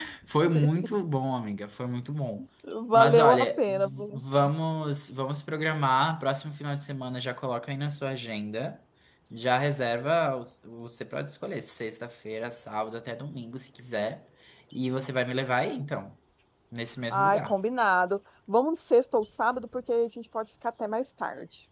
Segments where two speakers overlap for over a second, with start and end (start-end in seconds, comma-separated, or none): 2.9-4.2